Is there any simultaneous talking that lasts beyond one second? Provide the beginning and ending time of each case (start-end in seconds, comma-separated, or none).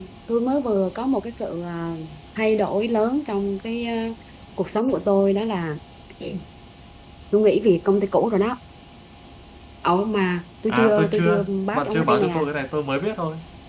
10.7-12.4